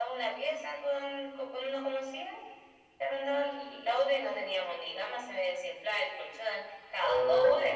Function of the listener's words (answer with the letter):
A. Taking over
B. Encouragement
A